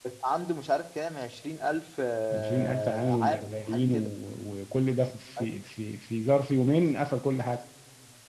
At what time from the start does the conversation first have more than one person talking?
2.3 s

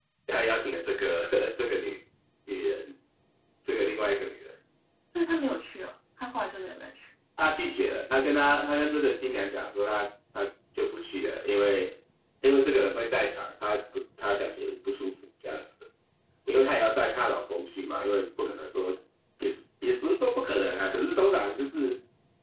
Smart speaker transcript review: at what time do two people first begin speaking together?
none

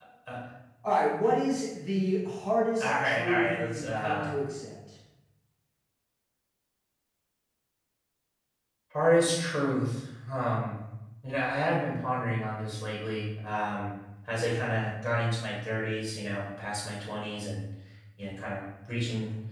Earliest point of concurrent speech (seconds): 2.8 s

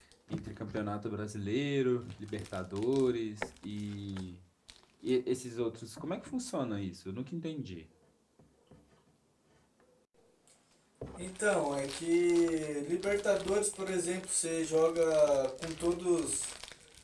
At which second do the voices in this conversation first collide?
none

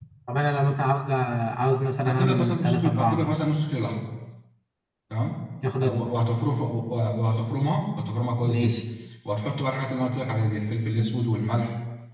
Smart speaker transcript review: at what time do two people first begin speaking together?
2.0 s

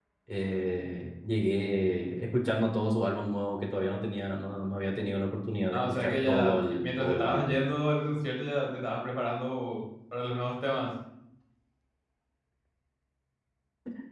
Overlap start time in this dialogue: 5.7 s

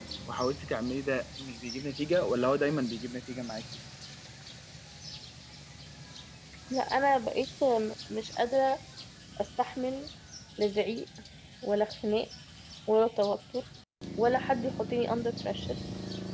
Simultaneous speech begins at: none

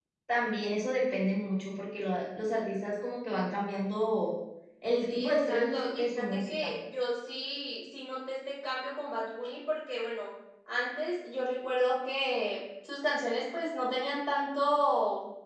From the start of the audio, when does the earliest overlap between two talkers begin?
5.1 s

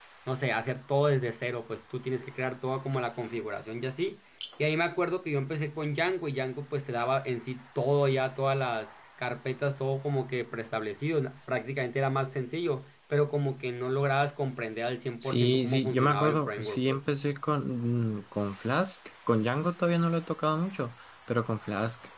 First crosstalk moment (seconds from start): 15.2 s

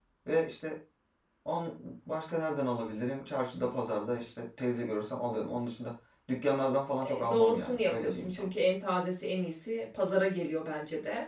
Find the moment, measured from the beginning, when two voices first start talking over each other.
7.0 s

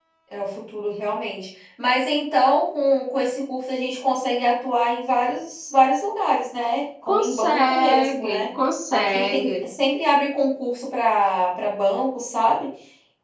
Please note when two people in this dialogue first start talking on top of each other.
7.1 s

